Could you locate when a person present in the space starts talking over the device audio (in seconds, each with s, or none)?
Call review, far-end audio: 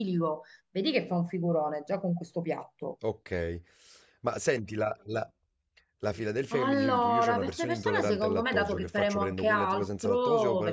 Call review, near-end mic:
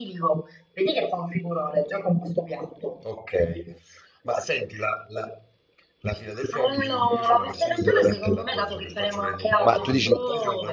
9.6 s